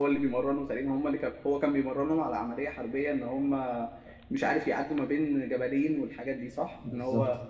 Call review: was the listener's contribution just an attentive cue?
No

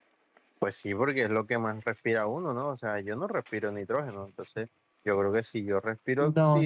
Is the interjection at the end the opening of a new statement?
Yes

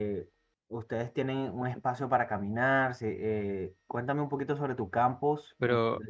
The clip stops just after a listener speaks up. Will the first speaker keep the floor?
No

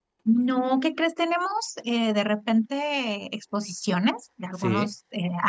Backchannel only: Yes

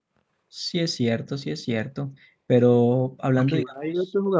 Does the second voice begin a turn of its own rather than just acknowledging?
Yes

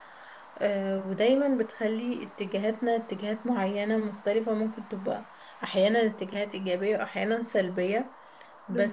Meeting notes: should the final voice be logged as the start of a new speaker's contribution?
No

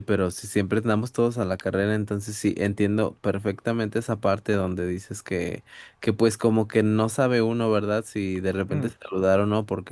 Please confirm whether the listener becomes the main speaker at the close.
No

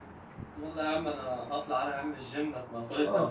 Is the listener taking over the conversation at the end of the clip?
Yes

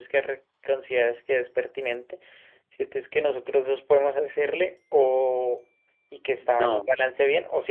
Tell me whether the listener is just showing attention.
Yes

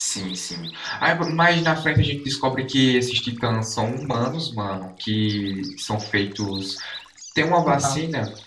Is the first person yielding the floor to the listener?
No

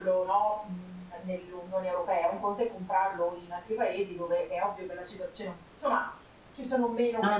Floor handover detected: Yes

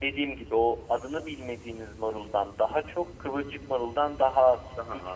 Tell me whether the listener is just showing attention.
Yes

